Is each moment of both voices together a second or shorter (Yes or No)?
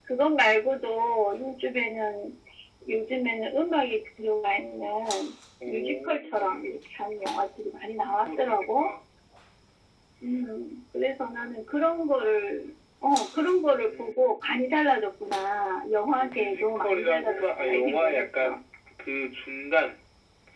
No